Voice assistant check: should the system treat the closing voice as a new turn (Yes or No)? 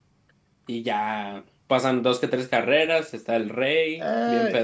Yes